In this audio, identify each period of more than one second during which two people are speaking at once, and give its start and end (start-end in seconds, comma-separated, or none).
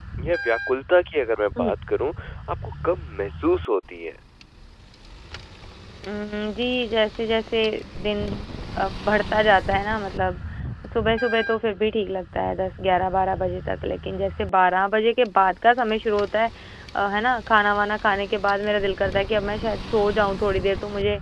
none